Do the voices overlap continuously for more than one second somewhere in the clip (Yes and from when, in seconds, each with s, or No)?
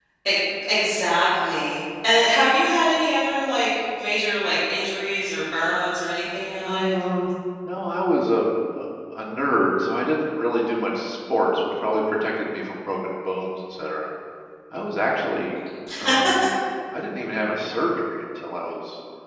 No